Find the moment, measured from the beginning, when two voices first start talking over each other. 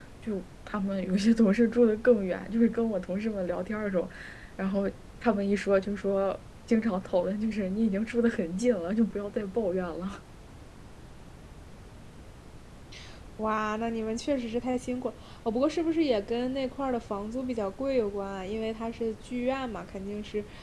none

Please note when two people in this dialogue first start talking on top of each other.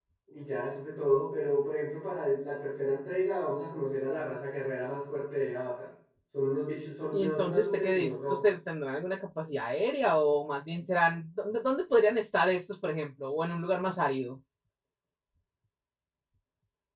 7.1 s

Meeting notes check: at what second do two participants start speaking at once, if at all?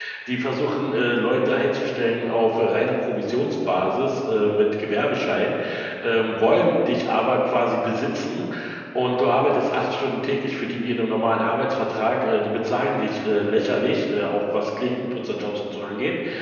none

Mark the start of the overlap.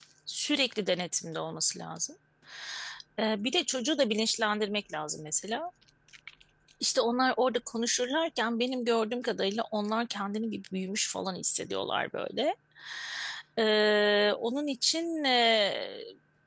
none

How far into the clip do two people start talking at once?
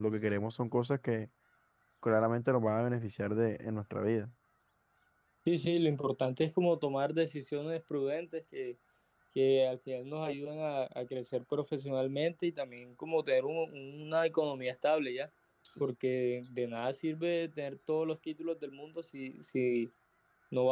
none

